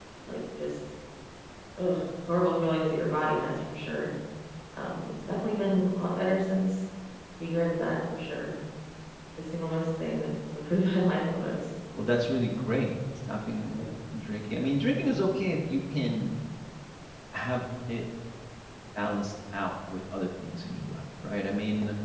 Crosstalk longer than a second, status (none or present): none